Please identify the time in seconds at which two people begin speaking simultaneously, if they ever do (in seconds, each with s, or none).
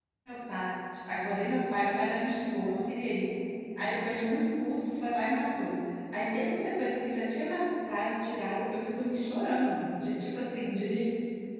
none